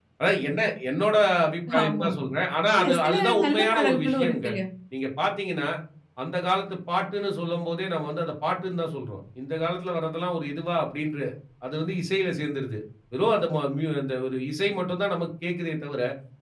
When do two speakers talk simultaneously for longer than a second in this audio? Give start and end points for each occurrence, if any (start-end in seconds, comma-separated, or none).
2.8-4.5